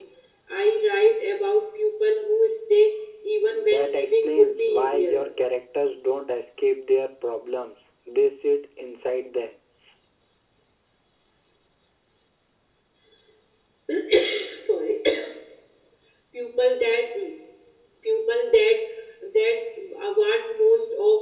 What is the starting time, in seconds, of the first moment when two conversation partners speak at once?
3.5 s

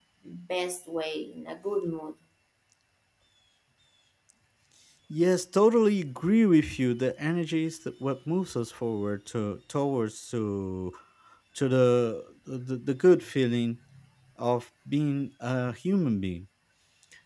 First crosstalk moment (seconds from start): none

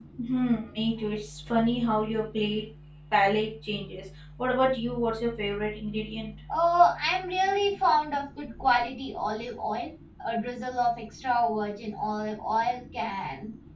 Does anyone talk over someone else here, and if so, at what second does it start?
none

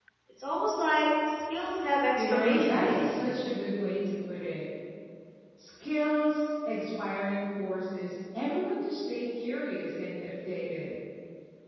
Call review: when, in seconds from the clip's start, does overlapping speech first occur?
2.2 s

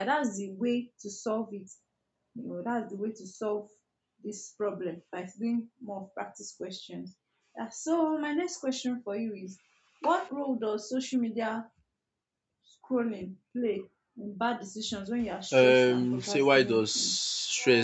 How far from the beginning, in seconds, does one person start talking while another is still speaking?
15.5 s

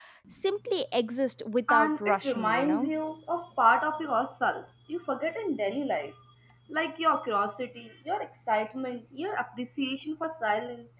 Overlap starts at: 1.7 s

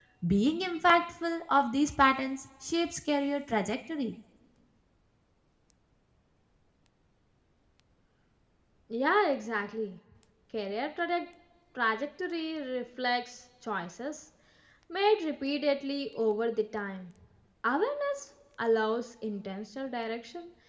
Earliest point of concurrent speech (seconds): none

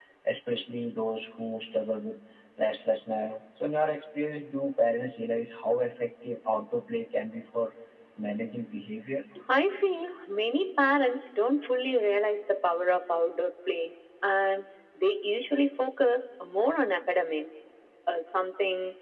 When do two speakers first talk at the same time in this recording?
none

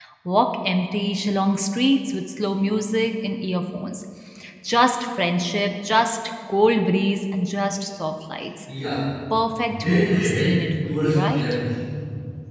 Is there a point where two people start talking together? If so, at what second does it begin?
9.7 s

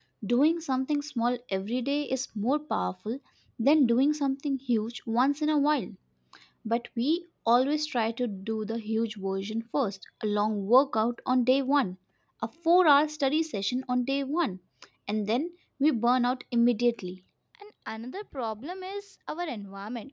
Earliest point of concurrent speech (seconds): none

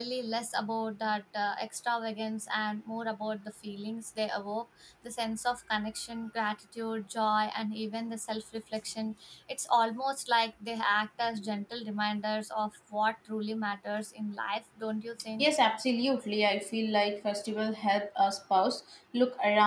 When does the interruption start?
none

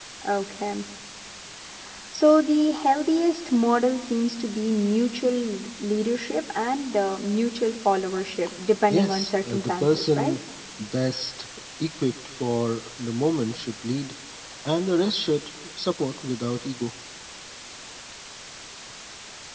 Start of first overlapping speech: 8.9 s

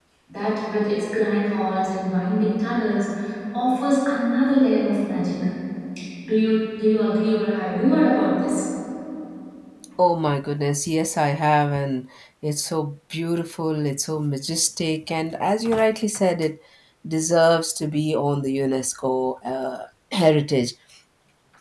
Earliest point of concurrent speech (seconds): none

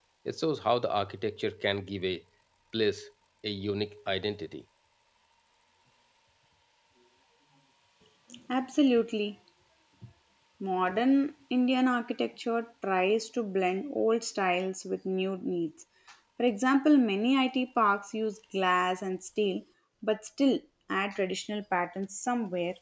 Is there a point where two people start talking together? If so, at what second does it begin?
none

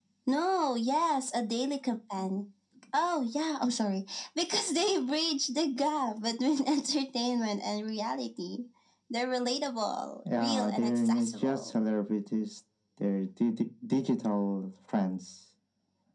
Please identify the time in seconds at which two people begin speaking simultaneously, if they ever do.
10.2 s

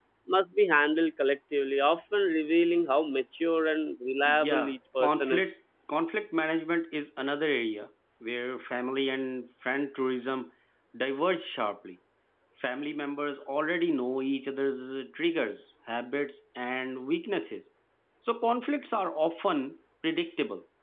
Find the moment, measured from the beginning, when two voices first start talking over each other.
4.2 s

